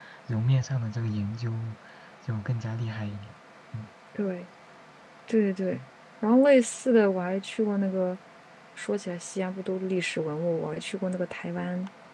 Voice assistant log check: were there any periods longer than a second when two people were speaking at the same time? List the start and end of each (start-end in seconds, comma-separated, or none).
none